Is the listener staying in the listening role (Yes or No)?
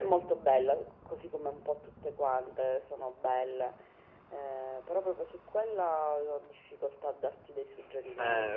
No